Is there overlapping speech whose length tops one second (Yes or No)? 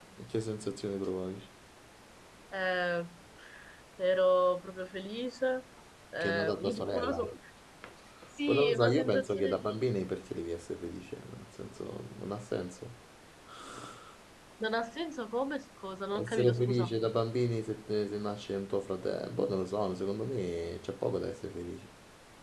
Yes